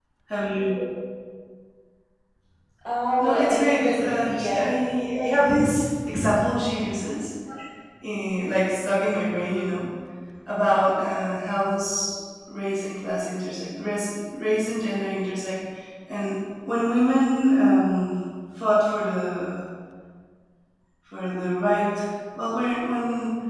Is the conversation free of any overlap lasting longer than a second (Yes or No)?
No